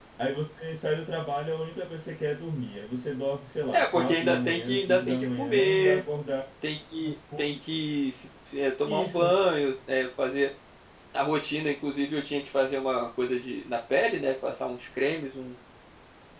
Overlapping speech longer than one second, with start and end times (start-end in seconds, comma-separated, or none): 3.7-6.0